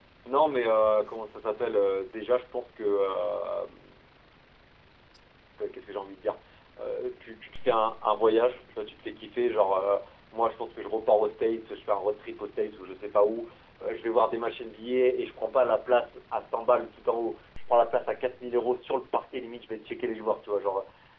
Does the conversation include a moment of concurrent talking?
No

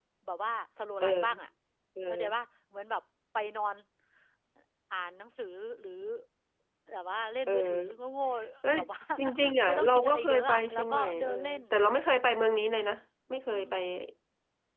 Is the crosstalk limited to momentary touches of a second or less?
No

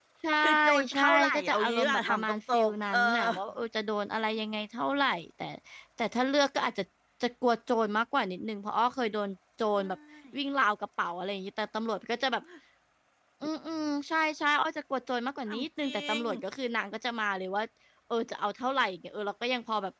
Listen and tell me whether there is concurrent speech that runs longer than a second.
Yes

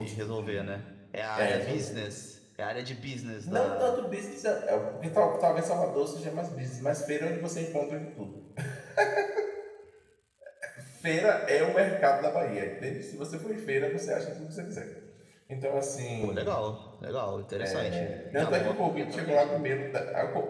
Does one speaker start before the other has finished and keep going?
Yes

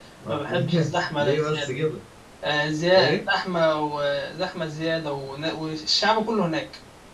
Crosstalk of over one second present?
Yes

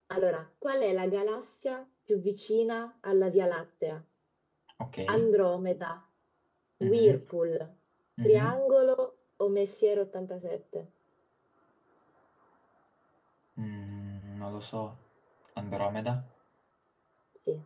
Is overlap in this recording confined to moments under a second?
Yes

